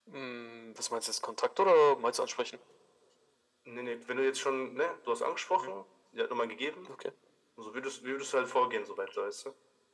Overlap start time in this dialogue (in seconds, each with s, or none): none